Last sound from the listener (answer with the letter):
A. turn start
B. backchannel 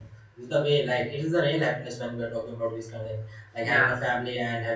B